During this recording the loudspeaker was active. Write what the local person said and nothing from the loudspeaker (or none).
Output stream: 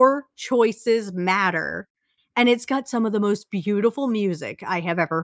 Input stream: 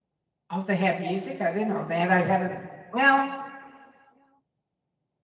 Oh, they have music? I didn't know that. I haven't well,